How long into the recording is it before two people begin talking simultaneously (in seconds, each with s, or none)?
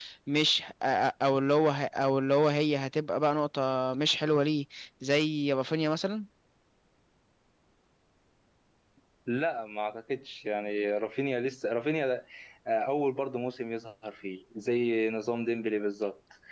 none